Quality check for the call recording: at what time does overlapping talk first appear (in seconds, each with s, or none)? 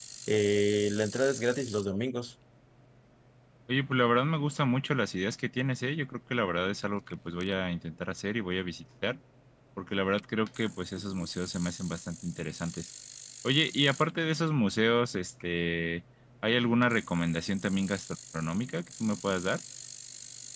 none